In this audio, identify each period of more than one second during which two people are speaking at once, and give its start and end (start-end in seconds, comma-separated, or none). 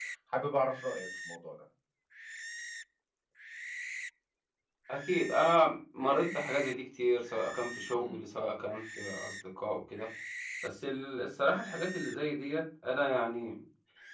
none